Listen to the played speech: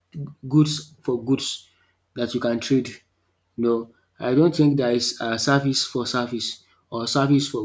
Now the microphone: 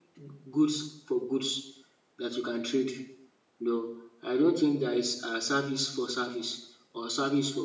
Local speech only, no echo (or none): none